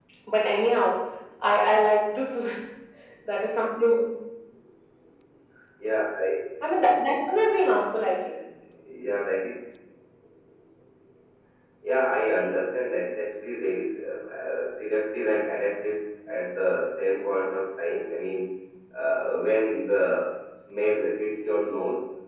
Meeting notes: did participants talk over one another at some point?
No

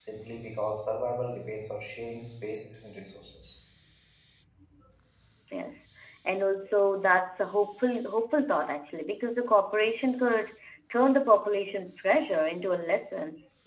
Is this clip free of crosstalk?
Yes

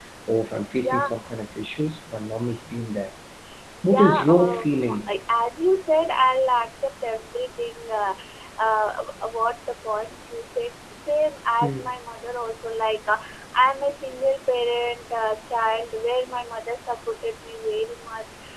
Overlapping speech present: Yes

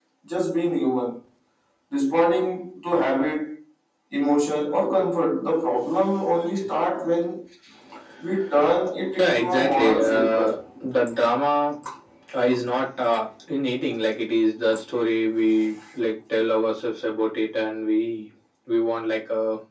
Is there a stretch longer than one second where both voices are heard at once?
Yes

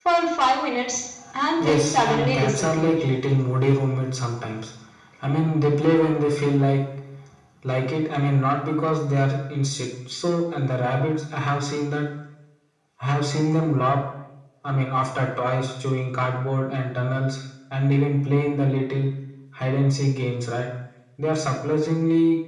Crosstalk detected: Yes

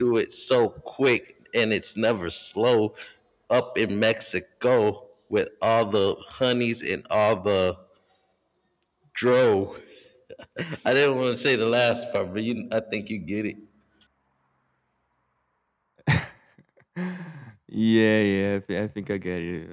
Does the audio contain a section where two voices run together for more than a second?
No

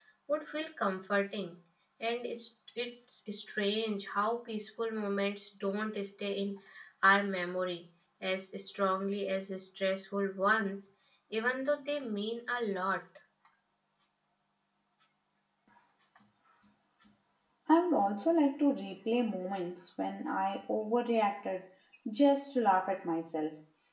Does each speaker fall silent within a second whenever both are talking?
Yes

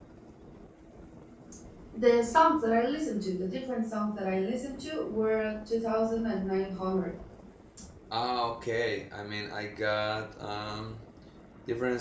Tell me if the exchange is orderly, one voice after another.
Yes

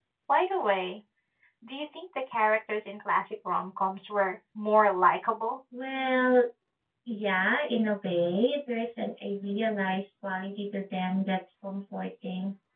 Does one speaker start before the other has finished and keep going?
No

